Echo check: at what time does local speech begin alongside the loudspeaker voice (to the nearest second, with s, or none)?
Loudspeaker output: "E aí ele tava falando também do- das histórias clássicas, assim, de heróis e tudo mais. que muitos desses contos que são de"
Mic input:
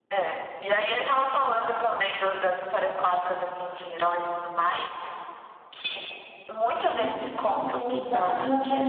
7 s